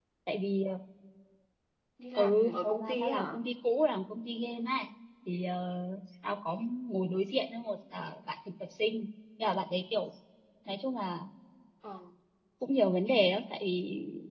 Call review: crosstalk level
present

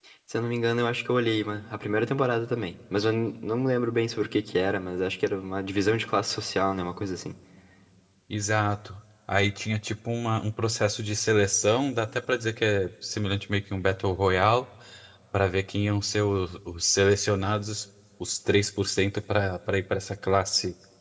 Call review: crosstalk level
none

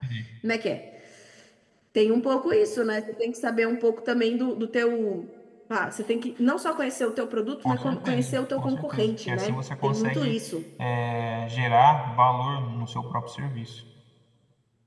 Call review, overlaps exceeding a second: present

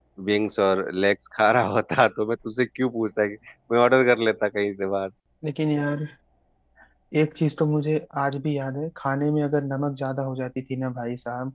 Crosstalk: none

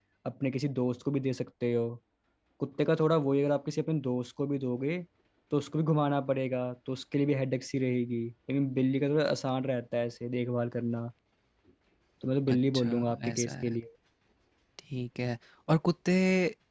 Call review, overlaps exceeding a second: present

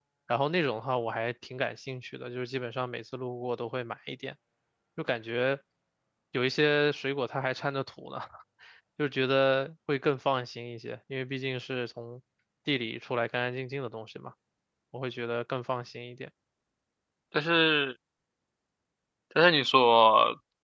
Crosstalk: none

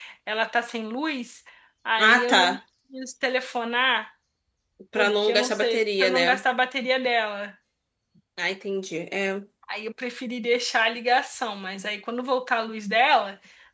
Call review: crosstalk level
present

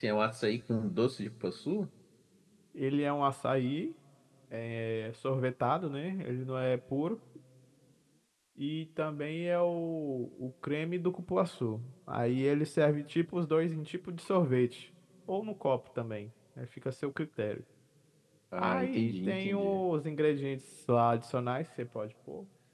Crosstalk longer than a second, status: present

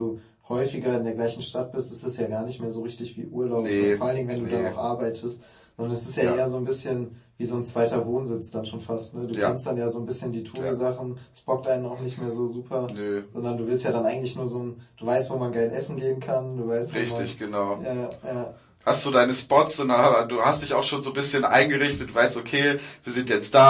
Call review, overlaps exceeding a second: none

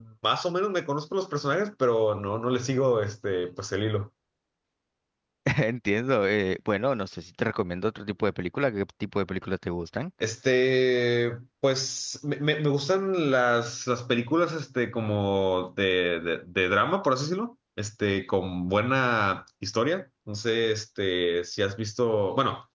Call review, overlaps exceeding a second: none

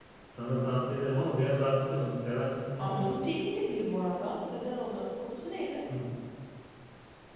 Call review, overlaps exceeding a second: none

